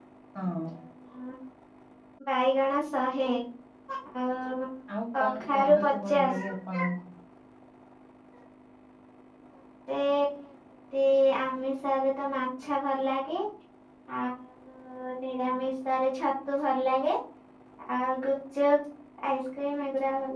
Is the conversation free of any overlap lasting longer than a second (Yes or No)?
No